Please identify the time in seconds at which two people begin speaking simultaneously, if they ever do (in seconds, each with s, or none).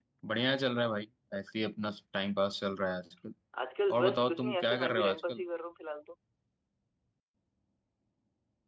3.9 s